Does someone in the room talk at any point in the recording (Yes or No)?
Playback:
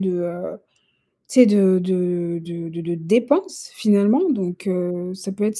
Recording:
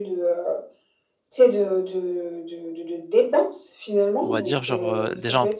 Yes